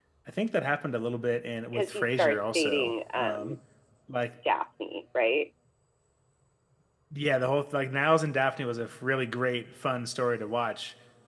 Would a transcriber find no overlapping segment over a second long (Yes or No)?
No